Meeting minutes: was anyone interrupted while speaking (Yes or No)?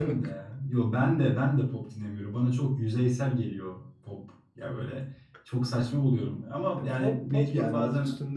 Yes